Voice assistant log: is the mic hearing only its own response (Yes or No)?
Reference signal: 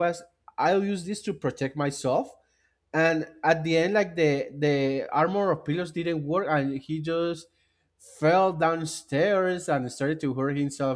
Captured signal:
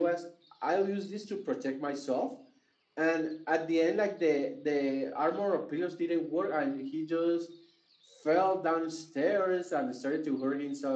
Yes